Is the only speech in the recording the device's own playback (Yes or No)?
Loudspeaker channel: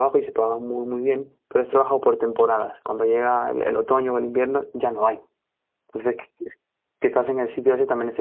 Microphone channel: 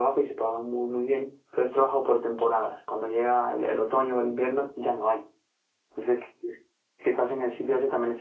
Yes